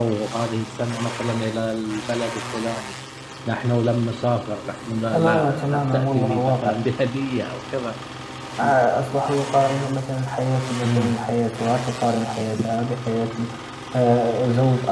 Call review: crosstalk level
present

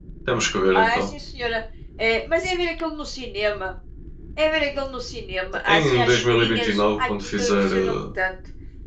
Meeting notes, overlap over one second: present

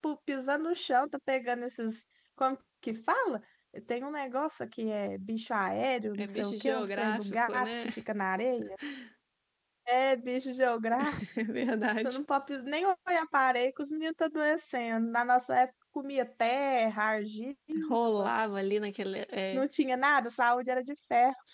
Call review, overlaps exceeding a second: present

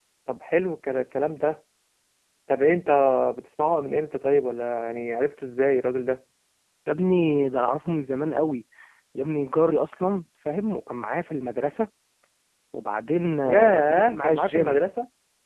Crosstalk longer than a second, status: present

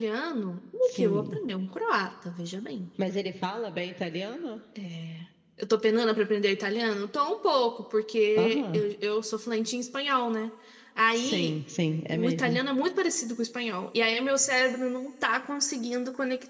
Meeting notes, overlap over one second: none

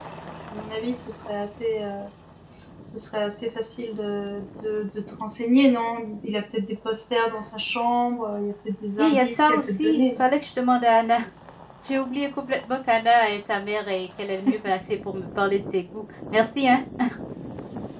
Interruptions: present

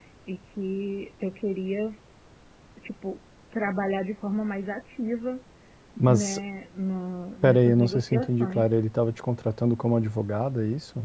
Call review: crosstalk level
present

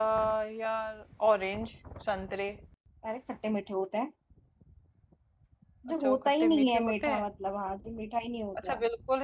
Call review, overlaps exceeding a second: present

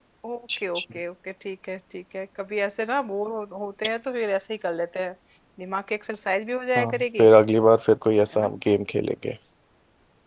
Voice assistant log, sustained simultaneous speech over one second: none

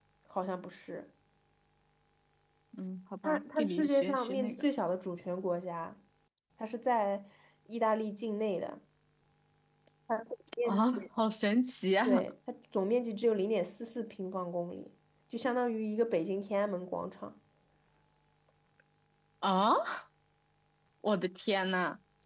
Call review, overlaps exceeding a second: present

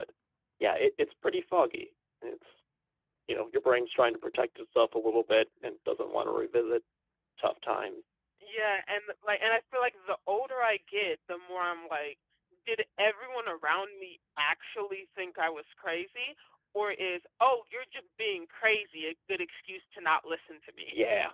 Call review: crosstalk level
none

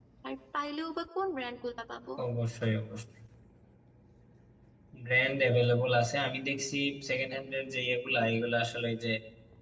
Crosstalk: none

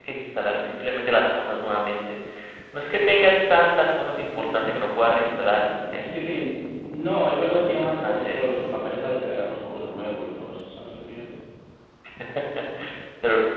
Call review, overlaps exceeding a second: present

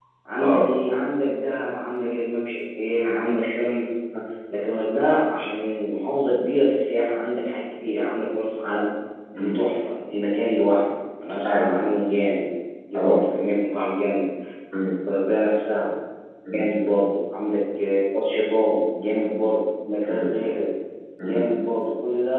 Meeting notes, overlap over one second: none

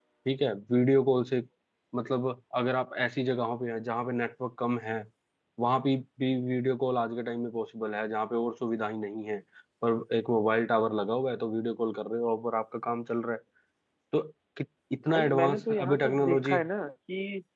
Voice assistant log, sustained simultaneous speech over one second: present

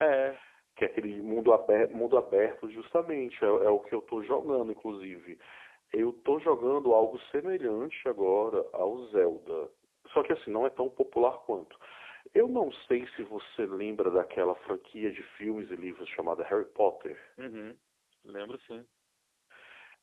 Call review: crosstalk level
none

